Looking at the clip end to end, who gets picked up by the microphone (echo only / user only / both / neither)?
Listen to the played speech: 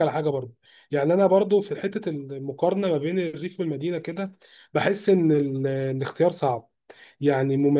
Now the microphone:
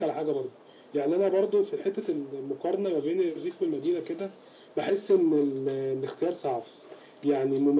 echo only